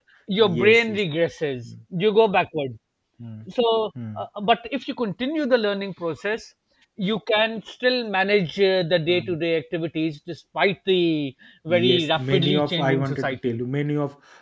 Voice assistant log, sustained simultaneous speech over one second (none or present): present